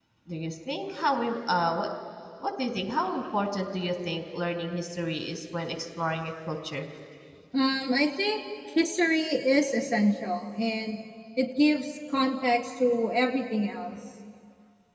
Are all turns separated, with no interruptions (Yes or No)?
Yes